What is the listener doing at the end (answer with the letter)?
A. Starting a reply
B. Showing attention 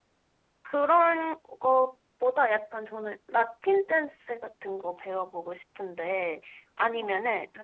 B